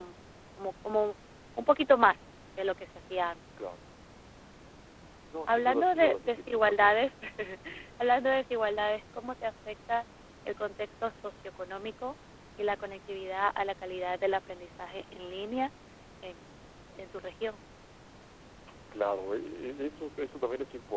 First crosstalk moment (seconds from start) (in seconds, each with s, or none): 5.5 s